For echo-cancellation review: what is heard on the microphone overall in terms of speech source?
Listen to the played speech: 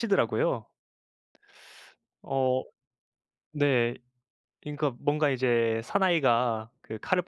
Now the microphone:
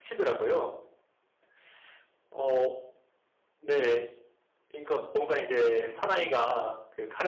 echo only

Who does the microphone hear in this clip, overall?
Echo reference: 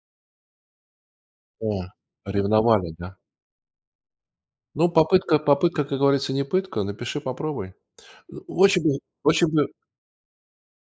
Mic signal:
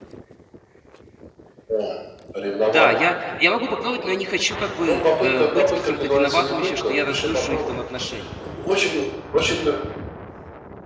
both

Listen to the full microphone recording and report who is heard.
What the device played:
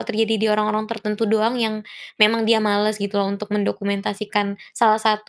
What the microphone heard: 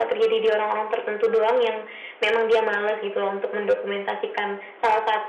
echo only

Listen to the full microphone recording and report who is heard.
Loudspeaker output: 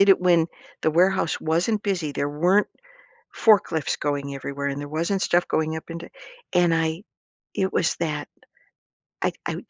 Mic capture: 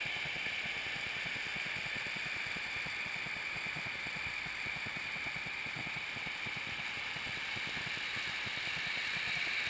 neither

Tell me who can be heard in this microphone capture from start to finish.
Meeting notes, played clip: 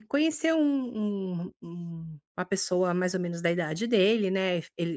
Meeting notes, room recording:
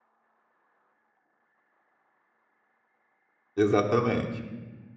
user only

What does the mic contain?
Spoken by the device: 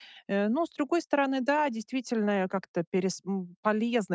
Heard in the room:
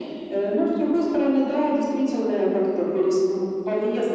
echo only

